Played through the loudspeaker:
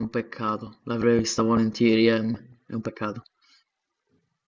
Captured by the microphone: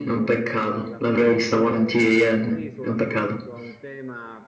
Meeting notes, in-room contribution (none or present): present